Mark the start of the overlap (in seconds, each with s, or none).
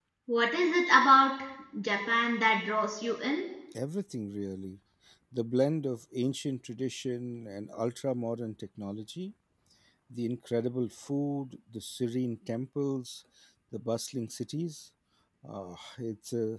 none